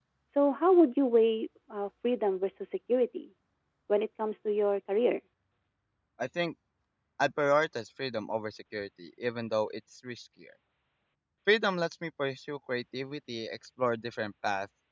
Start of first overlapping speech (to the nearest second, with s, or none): none